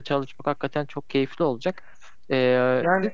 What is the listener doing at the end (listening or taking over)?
taking over